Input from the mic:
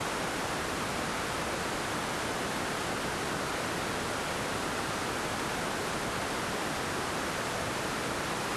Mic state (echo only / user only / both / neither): neither